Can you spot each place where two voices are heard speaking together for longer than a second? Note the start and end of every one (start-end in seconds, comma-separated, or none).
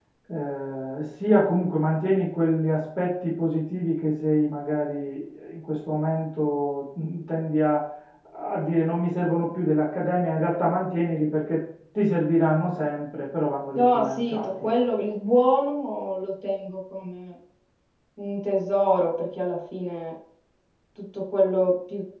13.8-15.1